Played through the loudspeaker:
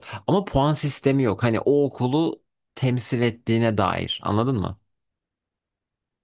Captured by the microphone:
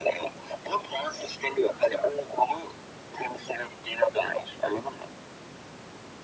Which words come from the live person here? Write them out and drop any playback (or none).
none